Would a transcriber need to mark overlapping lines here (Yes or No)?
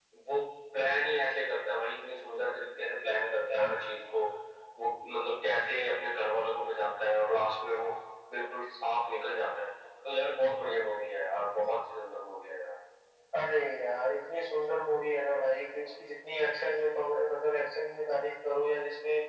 No